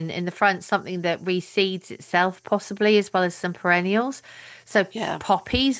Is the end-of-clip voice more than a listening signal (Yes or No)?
No